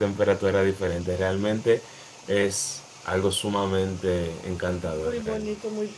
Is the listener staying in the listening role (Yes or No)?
No